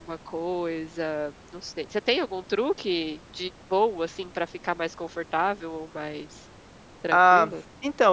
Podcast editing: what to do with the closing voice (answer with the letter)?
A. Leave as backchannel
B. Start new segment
B